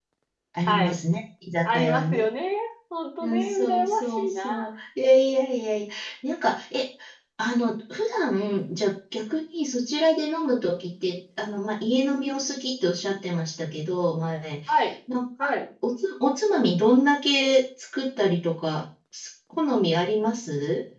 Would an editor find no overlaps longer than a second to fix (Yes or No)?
No